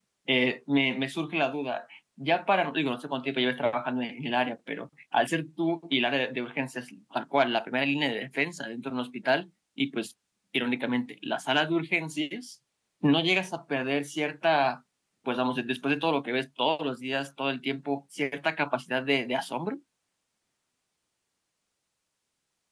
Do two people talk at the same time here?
No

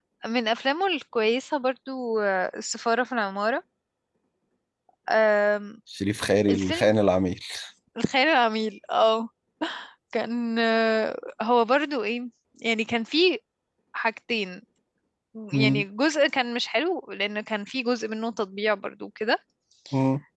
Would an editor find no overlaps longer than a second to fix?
Yes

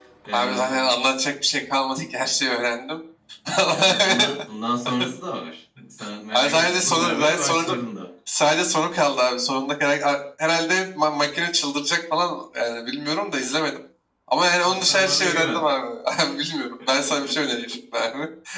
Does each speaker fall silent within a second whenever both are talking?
No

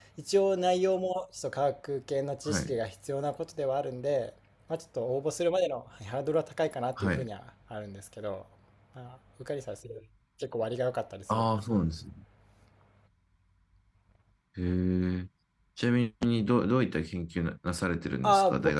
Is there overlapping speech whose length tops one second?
No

